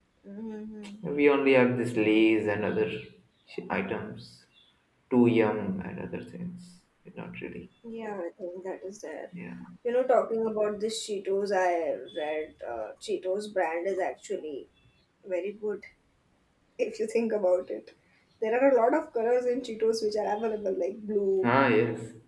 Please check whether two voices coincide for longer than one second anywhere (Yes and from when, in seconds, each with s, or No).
No